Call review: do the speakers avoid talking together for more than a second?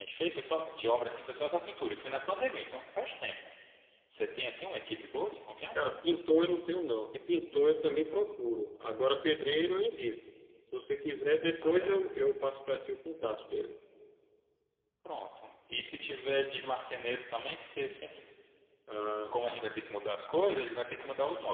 Yes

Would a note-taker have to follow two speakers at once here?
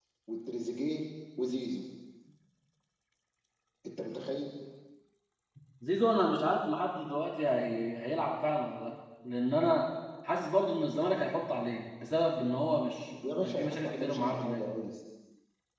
Yes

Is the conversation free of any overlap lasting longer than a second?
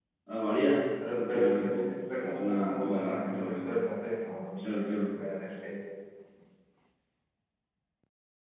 No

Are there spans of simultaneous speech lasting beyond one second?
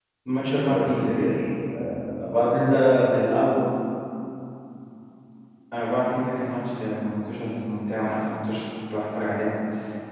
No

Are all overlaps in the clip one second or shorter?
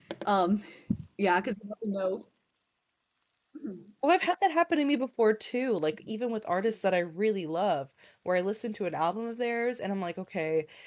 Yes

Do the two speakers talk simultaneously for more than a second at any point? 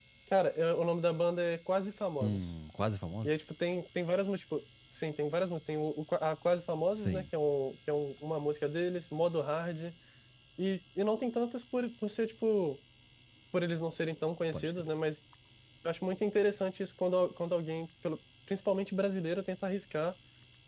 No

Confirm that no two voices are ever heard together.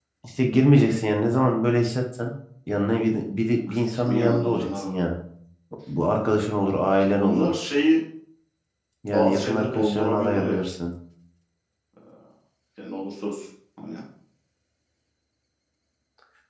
No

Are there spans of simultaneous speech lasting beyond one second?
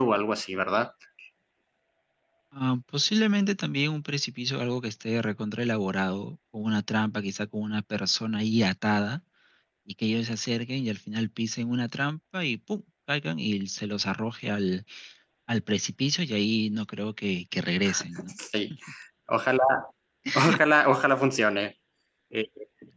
No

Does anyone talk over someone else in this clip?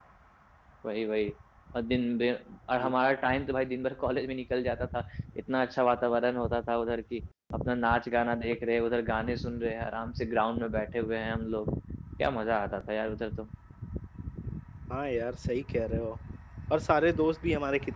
No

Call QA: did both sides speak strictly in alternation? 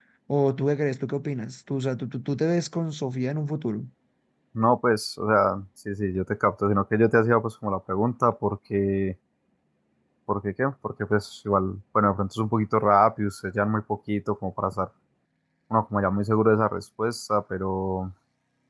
Yes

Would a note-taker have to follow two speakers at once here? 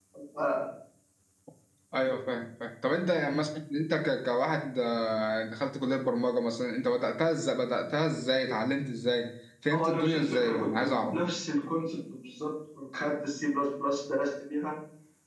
Yes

